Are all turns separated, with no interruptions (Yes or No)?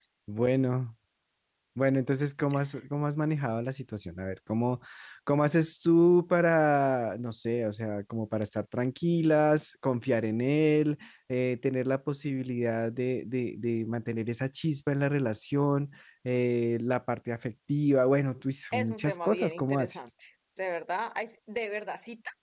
No